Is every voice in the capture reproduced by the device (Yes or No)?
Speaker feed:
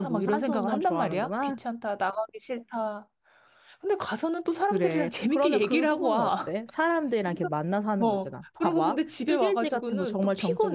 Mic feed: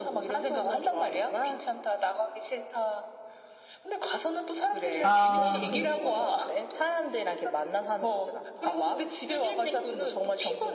No